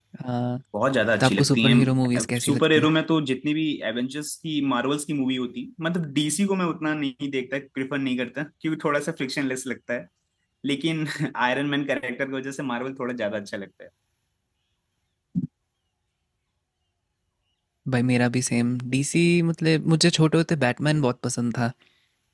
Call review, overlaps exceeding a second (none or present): present